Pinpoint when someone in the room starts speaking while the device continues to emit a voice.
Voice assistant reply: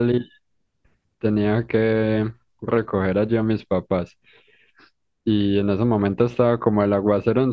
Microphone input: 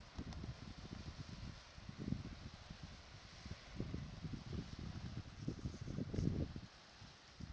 none

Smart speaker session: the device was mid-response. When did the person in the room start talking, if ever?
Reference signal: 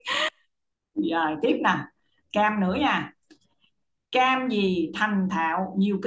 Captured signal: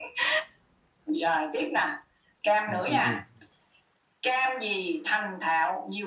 2.7 s

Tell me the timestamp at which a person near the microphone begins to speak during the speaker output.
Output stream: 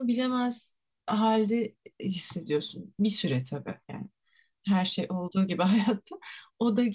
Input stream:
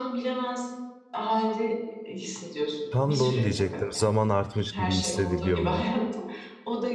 2.9 s

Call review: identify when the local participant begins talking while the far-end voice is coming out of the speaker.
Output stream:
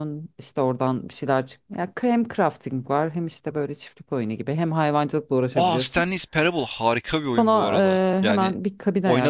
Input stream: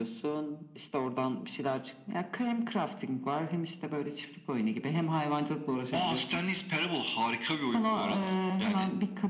none

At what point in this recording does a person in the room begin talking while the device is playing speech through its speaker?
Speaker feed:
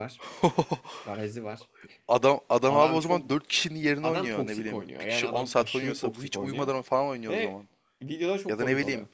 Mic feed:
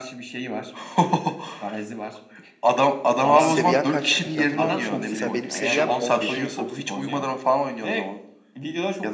3.4 s

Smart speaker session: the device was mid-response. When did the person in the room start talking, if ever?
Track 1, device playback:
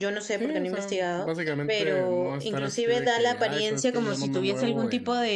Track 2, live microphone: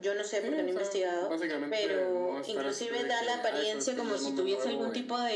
none

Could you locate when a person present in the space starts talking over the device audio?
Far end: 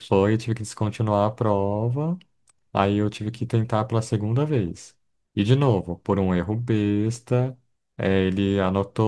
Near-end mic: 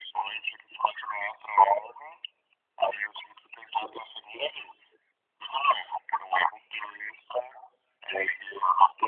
none

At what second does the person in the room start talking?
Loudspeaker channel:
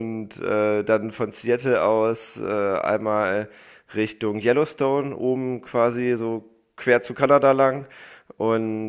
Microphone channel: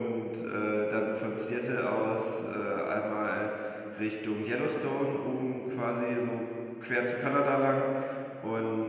none

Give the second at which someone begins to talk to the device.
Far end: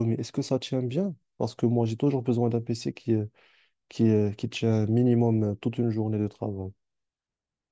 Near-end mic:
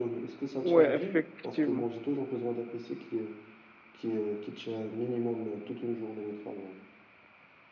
0.6 s

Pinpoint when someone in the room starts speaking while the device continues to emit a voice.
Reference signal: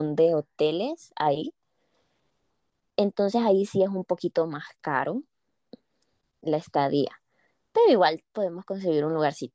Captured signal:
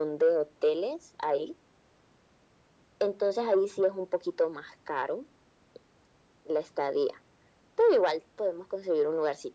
none

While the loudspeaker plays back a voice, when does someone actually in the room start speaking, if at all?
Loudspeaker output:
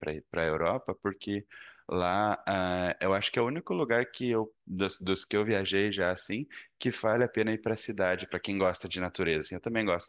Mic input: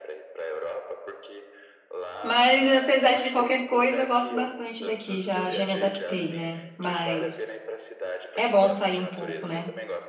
2.2 s

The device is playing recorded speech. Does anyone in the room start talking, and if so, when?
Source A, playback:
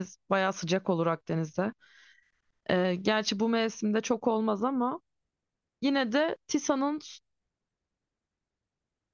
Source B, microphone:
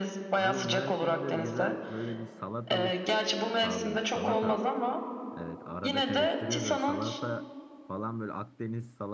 0.4 s

